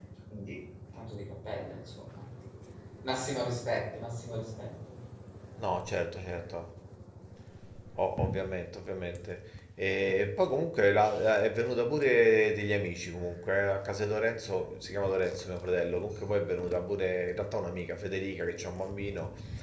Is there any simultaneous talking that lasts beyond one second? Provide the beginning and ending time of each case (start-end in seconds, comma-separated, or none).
none